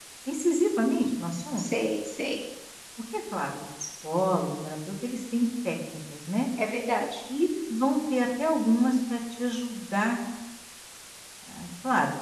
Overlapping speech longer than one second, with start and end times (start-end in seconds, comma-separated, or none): none